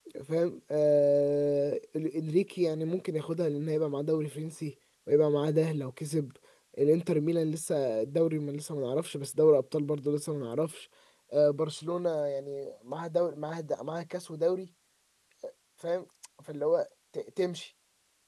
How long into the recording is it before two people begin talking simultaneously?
none

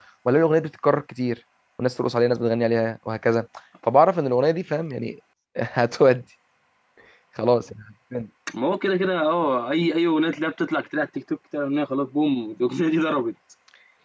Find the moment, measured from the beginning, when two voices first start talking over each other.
none

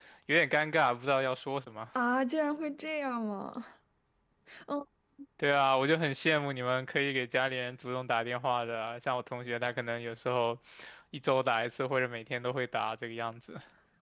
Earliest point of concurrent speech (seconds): none

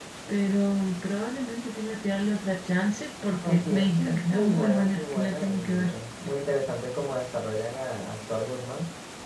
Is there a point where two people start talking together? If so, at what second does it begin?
3 s

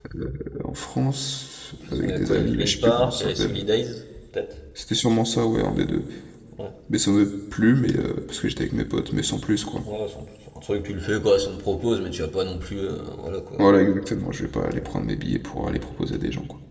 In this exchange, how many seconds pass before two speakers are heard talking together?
2 s

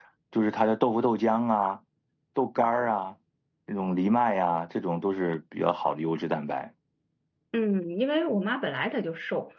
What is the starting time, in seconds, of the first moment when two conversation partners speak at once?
none

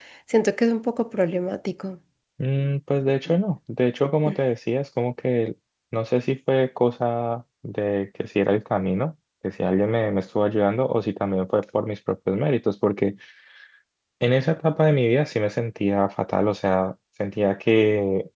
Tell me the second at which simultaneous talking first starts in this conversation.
none

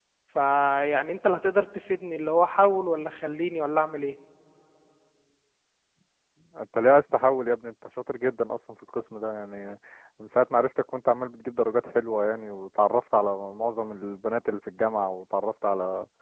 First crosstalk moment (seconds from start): none

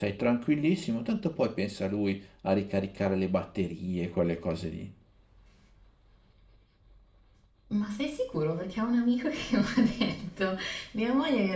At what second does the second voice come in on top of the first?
none

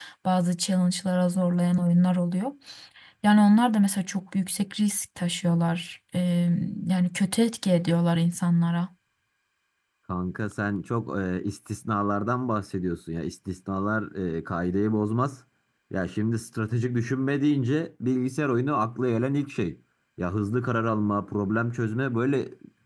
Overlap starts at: none

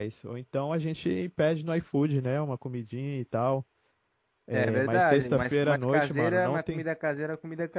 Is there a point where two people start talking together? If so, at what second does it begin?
5 s

